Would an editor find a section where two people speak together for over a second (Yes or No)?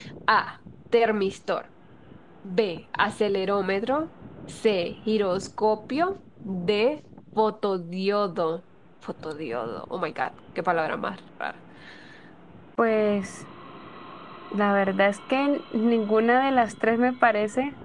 No